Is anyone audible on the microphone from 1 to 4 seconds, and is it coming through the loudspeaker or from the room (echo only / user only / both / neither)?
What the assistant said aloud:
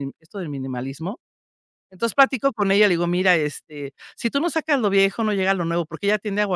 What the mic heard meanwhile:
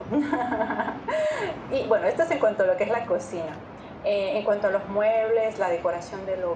user only